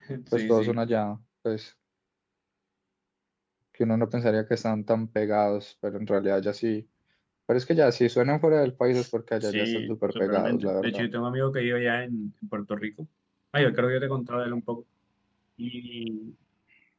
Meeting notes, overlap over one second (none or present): present